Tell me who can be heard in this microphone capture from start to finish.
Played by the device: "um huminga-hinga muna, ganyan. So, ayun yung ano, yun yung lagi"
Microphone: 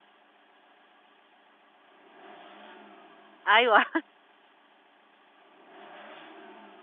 user only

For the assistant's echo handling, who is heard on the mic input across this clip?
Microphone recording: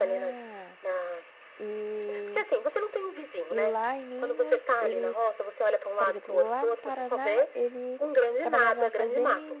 both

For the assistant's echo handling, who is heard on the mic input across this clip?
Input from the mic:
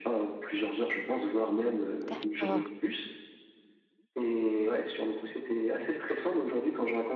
both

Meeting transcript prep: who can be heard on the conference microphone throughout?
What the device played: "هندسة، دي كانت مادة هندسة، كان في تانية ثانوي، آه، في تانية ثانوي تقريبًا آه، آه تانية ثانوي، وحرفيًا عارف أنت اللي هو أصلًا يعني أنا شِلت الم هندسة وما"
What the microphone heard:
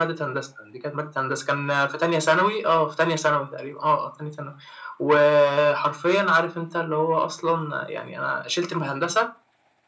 echo only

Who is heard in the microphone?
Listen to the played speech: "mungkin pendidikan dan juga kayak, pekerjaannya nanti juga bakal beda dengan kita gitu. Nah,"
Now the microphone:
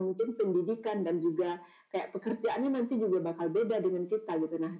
echo only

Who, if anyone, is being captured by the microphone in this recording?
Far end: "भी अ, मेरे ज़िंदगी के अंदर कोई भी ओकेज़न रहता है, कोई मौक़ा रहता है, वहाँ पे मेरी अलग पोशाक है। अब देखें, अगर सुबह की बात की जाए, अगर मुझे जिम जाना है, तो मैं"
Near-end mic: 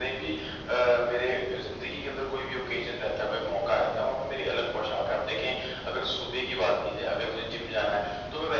echo only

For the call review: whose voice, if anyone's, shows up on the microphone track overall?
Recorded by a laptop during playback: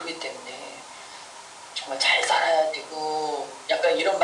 echo only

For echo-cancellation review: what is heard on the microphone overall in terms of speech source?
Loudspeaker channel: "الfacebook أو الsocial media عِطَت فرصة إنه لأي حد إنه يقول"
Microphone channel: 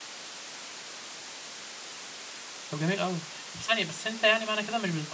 user only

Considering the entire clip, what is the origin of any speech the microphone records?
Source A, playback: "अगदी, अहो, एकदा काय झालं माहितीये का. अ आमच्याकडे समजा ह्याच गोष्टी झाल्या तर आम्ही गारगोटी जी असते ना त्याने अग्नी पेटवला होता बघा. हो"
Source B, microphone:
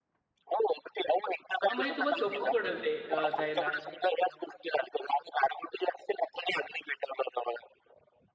both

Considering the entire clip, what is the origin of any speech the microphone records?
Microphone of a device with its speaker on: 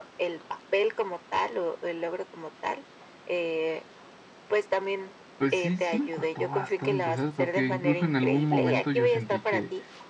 both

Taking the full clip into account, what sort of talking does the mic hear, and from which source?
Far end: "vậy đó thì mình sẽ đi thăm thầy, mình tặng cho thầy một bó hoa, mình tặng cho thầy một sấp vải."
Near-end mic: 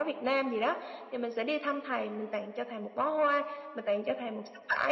echo only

